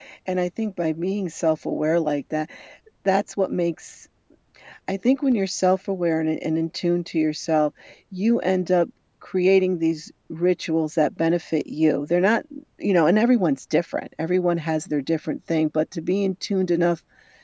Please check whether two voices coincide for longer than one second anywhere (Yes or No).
No